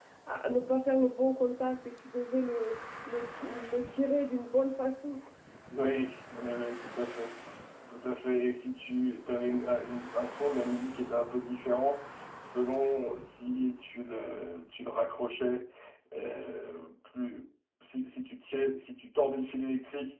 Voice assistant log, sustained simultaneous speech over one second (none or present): none